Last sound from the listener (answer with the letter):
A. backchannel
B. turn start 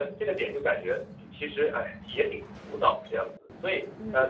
B